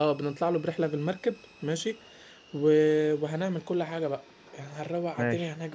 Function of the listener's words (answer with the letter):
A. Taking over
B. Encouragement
B